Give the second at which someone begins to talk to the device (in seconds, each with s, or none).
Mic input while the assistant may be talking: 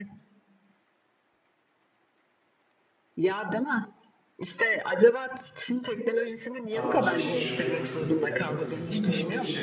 6.7 s